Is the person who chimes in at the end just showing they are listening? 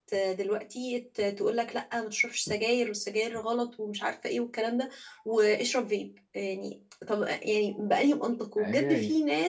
Yes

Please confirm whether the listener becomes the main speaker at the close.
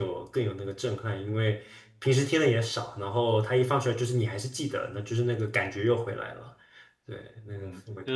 Yes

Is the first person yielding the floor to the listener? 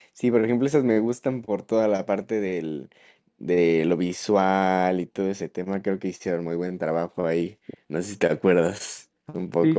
Yes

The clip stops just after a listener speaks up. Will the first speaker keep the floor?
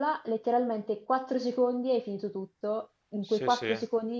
Yes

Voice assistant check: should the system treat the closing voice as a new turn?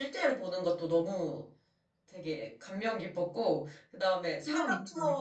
No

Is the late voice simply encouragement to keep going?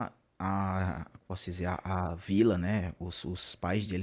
Yes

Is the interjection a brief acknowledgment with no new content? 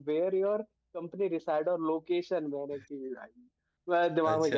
Yes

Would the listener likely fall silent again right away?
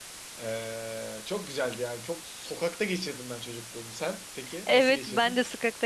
No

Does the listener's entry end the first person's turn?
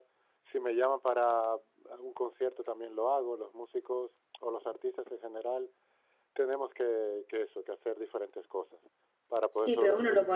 Yes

